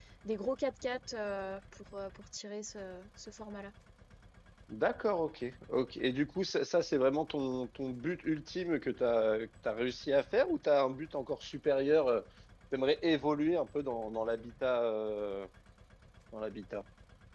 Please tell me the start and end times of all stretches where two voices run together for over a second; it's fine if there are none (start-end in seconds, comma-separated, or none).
none